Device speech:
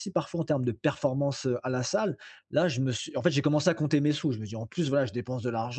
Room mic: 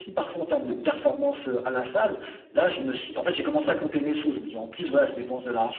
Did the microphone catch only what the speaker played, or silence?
Yes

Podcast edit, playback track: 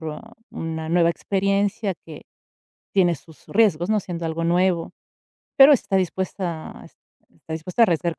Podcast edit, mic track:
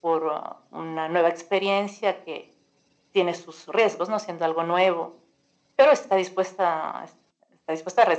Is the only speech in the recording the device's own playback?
Yes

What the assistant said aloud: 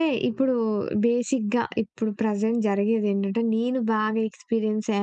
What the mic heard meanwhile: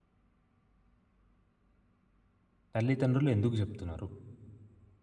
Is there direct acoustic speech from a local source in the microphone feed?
Yes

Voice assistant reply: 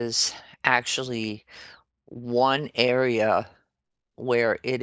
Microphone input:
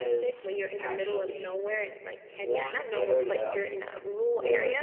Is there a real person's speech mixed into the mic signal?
Yes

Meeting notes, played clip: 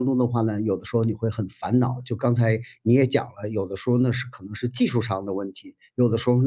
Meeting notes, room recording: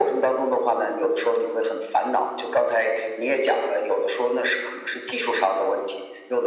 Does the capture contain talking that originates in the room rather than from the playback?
No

